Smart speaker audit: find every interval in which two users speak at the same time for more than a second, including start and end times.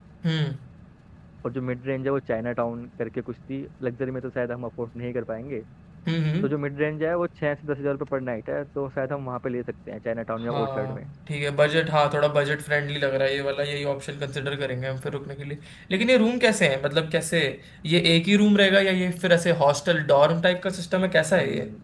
none

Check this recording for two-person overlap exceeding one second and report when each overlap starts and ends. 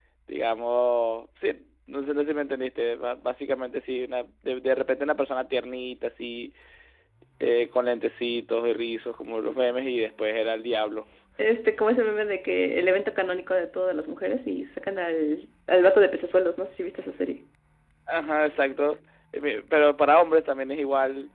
none

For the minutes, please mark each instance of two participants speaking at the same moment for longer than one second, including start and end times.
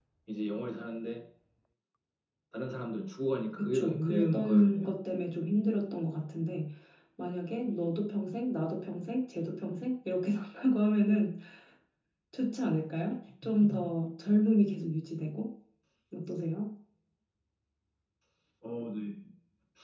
3.5-4.9

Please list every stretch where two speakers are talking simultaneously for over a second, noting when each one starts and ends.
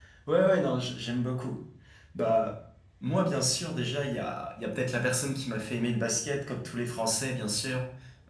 none

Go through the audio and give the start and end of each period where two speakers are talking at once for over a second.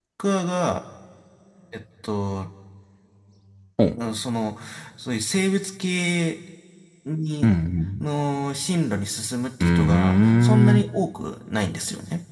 9.6-10.8

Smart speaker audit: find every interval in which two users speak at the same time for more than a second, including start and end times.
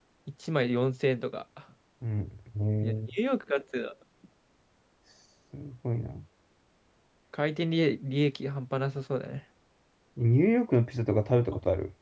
none

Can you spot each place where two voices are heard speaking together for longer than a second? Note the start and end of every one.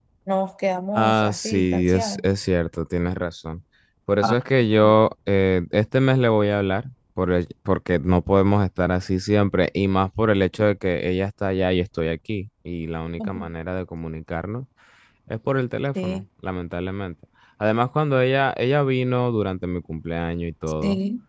1.0-2.2

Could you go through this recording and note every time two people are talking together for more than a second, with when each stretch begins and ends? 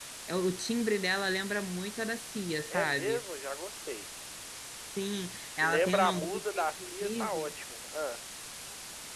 5.6-7.5

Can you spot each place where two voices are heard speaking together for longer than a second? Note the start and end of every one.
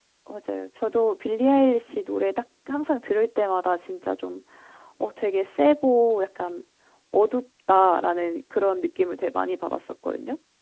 none

